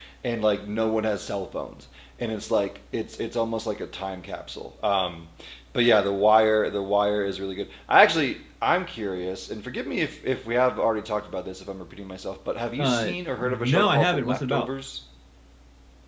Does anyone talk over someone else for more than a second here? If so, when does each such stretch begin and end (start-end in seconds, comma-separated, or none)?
12.8-14.7